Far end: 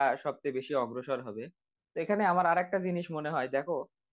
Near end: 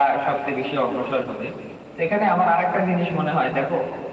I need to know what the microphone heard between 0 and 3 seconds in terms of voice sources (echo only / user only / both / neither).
echo only